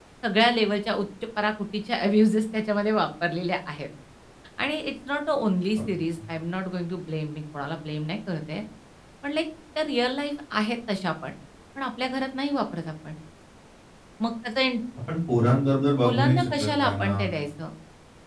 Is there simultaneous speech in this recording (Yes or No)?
Yes